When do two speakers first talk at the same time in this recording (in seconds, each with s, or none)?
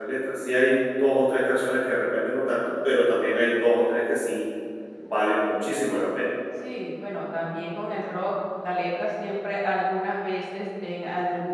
none